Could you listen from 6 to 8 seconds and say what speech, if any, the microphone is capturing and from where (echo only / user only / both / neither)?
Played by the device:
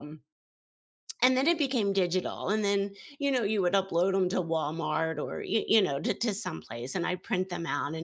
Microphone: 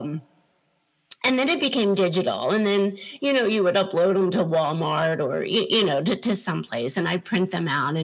echo only